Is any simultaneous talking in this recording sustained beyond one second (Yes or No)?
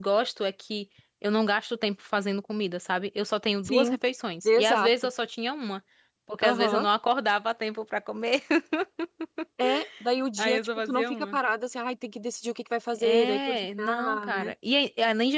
Yes